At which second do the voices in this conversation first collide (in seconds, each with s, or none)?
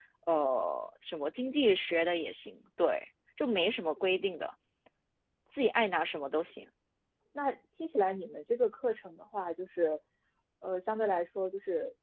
none